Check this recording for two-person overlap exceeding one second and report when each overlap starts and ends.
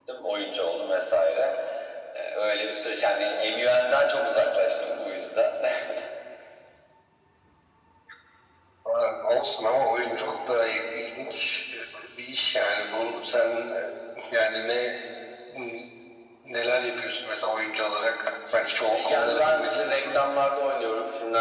18.9-20.2

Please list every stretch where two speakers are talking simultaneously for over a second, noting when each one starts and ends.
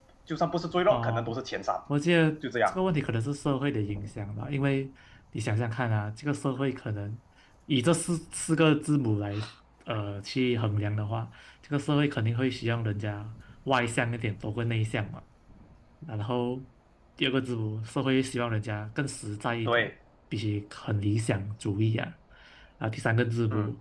none

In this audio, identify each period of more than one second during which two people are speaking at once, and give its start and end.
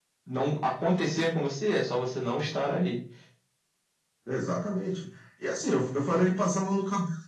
none

